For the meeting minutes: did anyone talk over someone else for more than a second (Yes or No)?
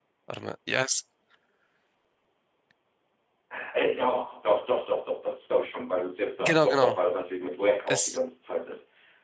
No